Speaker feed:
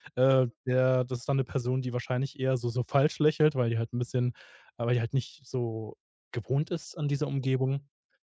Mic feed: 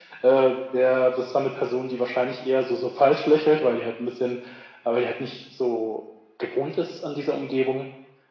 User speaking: No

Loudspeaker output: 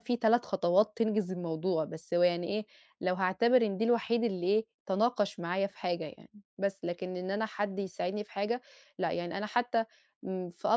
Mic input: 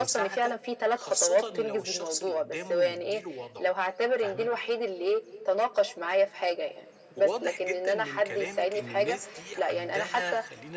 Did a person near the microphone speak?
Yes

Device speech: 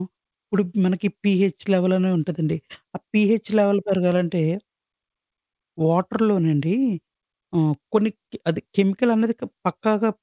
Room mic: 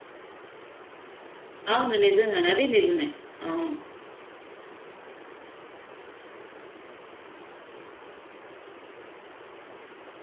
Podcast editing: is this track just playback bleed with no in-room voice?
No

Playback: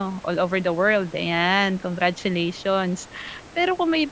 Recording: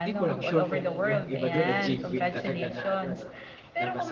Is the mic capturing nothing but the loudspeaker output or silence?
No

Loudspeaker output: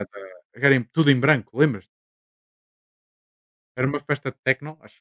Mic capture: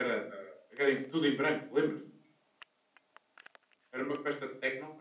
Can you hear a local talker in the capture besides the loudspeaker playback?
No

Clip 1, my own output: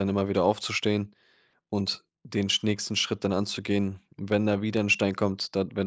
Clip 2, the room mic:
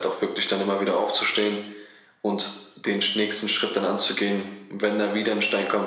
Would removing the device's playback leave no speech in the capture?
Yes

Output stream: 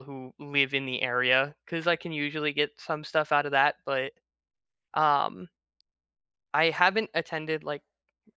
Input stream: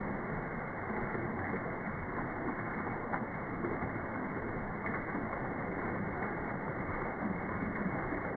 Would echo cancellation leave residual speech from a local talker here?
No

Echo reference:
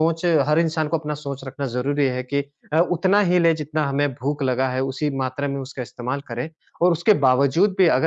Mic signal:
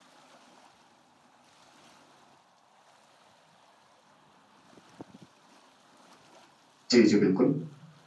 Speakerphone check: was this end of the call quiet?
No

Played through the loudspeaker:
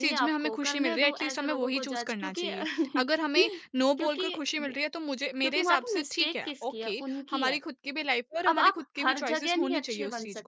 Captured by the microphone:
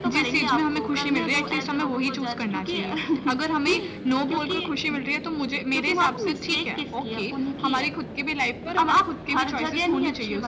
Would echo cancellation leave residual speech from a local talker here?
No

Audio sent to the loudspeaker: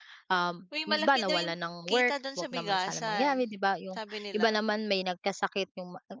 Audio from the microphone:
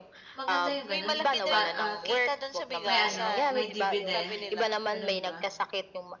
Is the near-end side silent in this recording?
No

